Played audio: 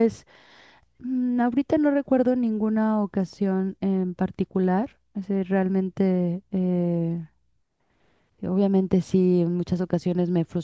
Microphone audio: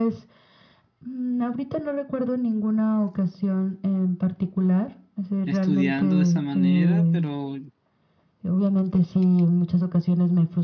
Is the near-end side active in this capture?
Yes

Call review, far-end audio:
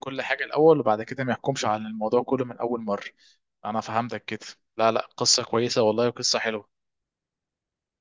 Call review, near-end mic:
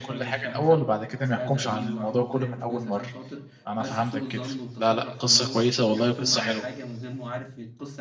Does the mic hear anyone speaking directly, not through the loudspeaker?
Yes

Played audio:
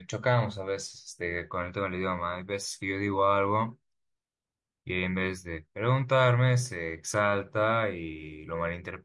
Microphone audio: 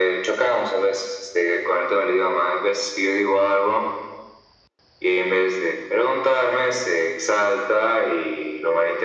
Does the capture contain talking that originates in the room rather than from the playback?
No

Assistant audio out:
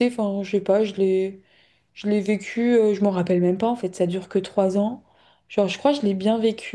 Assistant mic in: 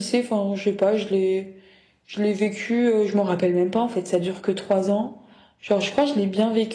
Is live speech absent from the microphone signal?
Yes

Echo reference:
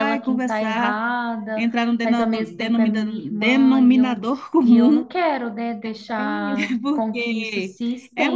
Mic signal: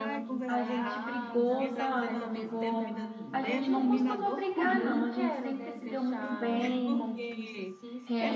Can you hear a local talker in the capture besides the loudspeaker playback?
Yes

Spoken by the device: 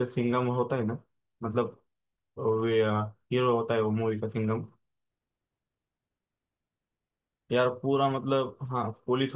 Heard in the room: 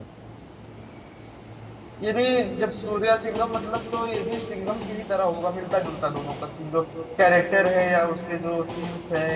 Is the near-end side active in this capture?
Yes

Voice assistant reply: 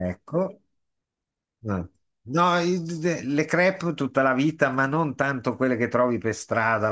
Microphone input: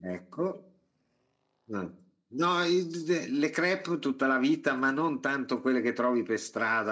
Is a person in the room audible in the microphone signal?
No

